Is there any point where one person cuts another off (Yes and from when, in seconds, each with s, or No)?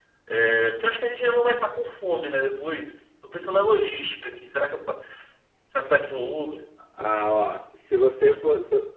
No